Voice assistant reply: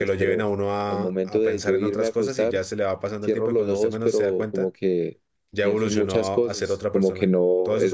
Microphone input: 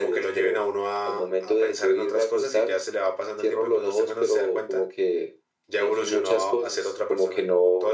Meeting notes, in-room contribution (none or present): none